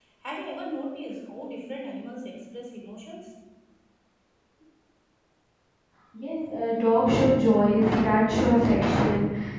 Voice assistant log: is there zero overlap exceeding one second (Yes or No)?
Yes